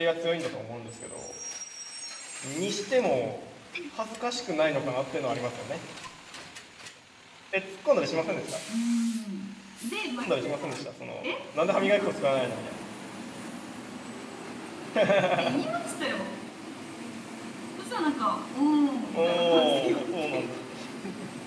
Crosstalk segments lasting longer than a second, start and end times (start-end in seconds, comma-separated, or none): 19.0-20.4